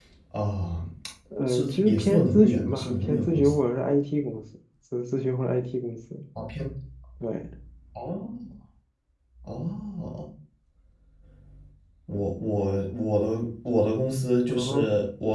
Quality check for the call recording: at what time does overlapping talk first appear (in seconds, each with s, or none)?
1.5 s